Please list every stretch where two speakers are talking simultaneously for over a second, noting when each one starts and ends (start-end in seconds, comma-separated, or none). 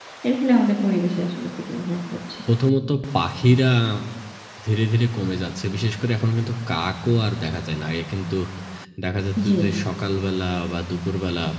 none